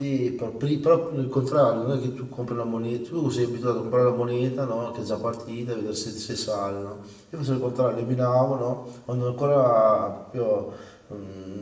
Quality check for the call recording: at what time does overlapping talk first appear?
none

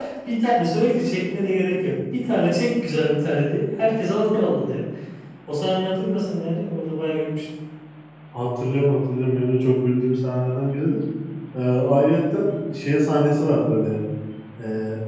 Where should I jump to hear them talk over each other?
none

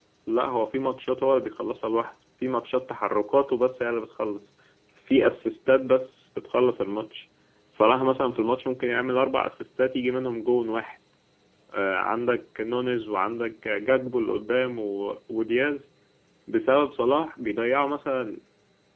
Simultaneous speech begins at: none

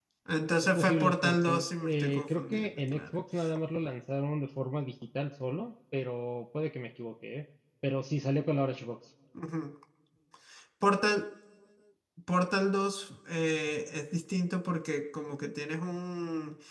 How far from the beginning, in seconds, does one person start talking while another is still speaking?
0.8 s

